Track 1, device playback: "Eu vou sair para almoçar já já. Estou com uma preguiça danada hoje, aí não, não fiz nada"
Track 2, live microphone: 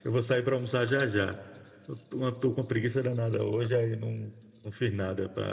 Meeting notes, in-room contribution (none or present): none